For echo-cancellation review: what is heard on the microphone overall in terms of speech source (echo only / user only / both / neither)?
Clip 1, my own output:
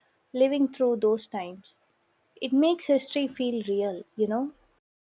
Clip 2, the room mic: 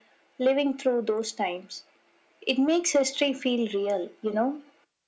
echo only